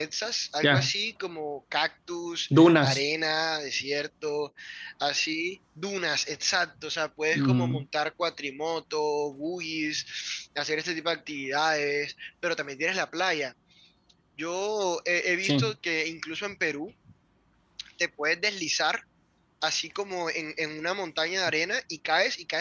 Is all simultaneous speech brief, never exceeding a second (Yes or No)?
Yes